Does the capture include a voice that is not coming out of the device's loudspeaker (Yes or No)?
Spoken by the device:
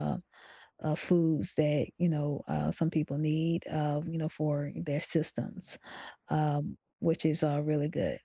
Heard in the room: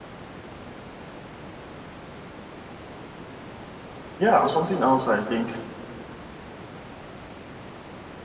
Yes